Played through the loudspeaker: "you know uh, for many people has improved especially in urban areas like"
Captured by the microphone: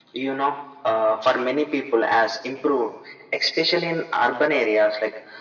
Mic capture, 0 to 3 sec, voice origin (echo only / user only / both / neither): echo only